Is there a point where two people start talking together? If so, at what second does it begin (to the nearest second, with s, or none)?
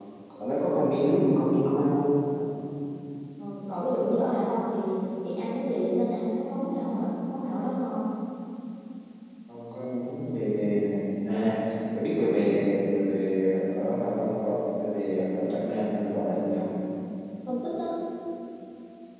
none